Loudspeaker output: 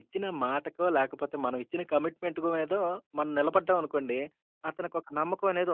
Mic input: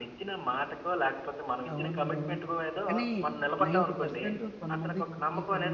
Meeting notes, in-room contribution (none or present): present